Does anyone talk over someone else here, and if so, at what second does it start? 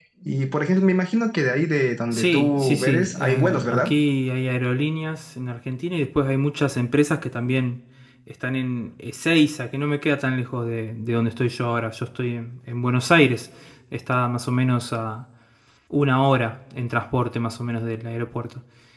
2 s

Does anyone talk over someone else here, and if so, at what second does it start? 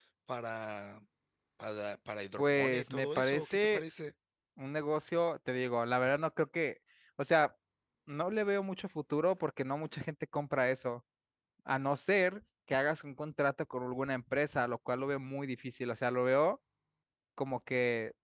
2 s

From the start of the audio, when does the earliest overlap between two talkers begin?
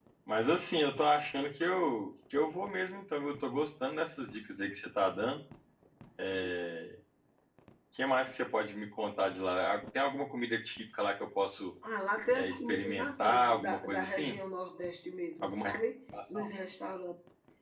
12 s

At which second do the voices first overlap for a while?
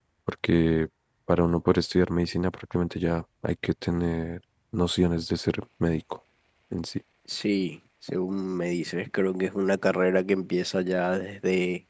none

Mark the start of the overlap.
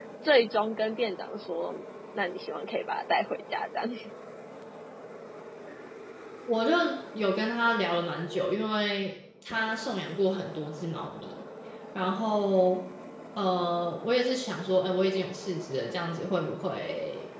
none

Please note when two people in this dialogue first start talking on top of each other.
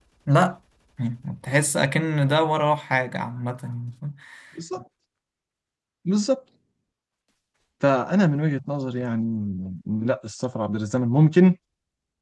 none

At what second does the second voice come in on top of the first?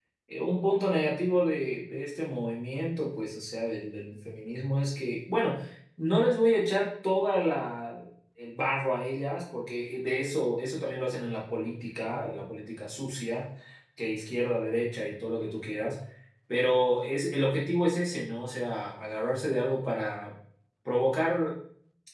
none

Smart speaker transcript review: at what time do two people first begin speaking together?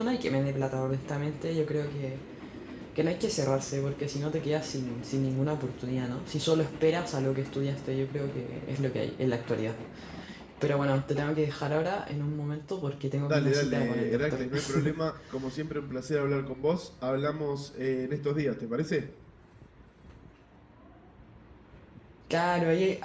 13 s

